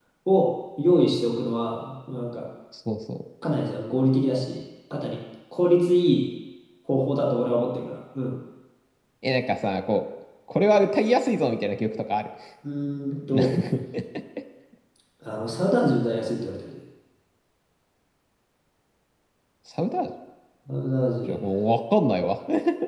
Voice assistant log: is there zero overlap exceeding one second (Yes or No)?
Yes